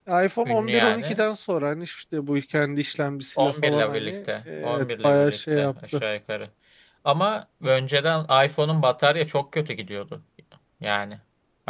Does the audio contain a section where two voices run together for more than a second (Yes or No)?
Yes